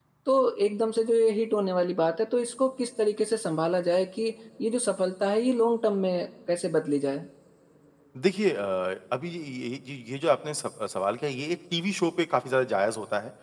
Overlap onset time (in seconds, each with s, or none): none